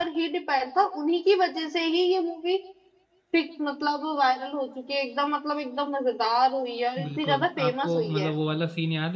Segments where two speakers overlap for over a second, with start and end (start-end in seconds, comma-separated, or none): 7.0-8.3